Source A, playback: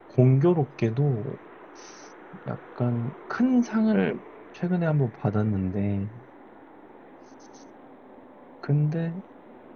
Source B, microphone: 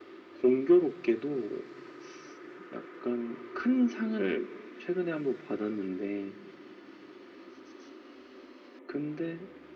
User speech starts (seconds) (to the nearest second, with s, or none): none